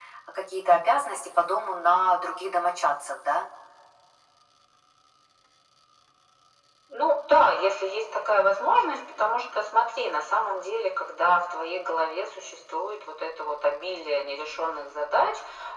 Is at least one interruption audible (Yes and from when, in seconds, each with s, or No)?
No